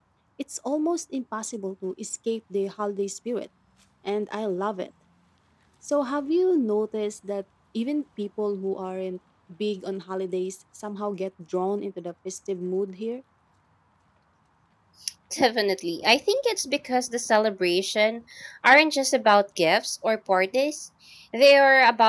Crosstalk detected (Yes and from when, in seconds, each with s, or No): No